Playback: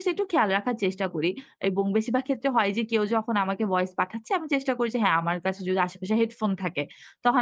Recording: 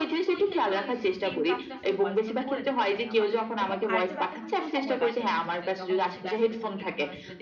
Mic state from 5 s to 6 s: both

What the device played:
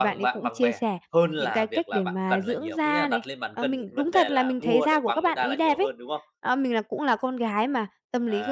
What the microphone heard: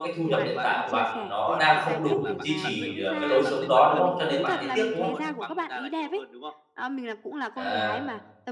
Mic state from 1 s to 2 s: both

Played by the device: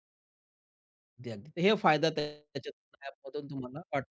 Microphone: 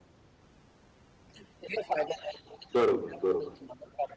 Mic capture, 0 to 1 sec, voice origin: neither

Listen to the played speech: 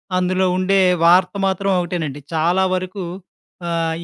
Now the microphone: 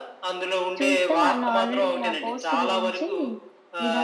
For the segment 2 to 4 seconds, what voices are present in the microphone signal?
both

